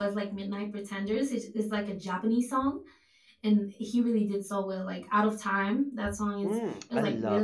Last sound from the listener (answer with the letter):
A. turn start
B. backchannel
A